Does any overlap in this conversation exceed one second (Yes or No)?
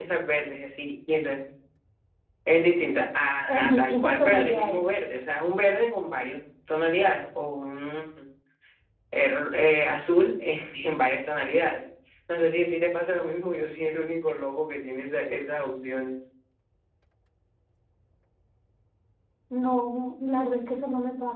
Yes